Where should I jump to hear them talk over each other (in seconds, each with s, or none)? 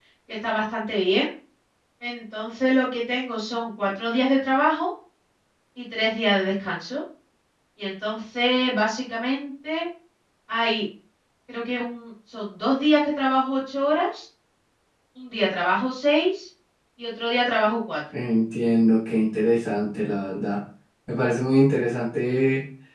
none